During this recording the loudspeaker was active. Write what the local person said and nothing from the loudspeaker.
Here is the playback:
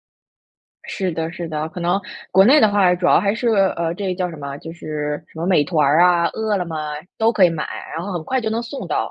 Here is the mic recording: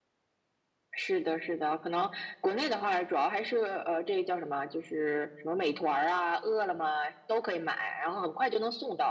none

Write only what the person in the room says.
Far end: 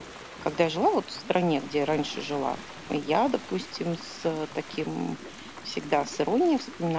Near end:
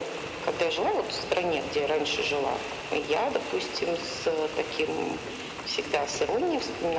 none

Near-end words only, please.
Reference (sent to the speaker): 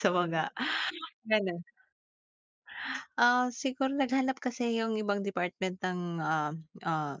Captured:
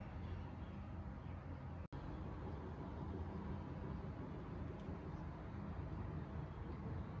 none

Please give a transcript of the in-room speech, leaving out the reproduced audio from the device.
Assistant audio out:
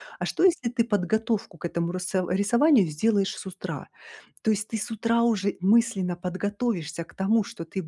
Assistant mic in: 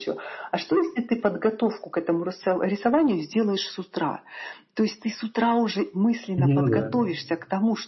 Ну да.

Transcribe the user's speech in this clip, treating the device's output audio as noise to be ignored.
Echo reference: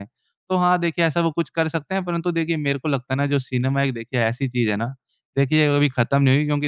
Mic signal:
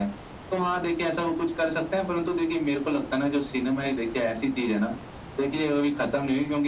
none

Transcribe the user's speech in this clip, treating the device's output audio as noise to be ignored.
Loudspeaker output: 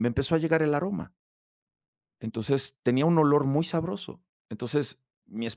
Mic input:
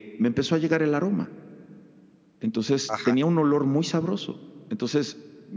Ajá.

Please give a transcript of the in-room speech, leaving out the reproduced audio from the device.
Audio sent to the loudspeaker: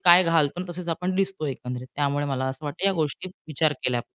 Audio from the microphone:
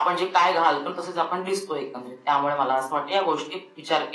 none

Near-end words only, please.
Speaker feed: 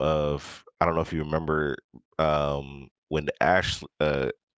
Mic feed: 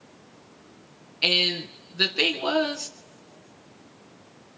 and the thing was,

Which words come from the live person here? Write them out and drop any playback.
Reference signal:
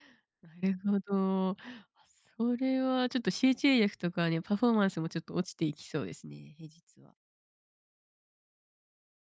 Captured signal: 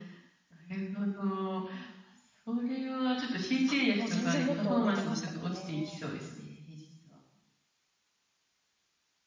あ、もう全然もっと寝てましたね。

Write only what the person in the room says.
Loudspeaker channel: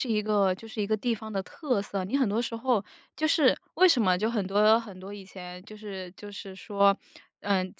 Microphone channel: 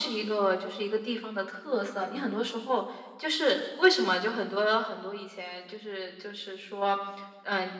none

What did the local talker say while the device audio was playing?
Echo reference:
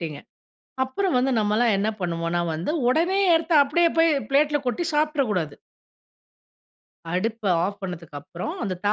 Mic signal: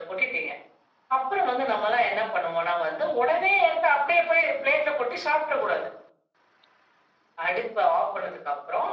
none

